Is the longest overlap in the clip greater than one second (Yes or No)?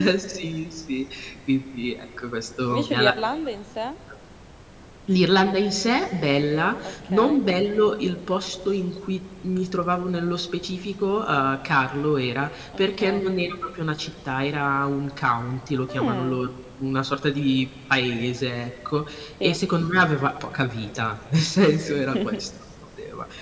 No